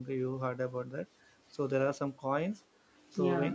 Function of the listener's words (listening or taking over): listening